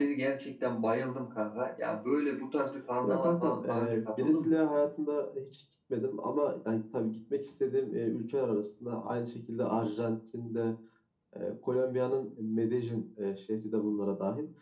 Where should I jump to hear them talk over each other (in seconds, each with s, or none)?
3.0 s